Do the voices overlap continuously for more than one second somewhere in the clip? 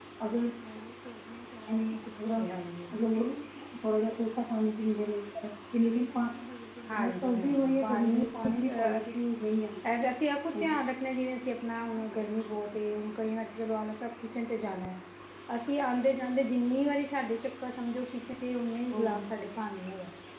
Yes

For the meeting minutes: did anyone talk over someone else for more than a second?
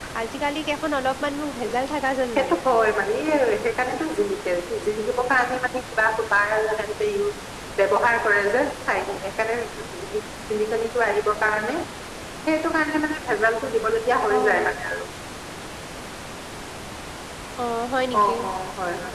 No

